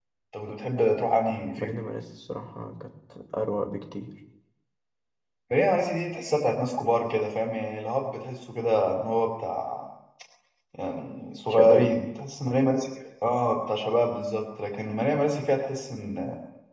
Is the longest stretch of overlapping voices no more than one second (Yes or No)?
Yes